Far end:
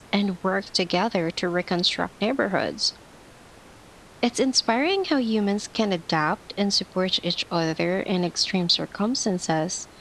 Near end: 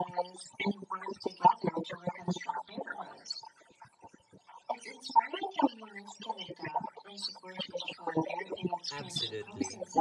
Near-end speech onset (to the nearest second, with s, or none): 9 s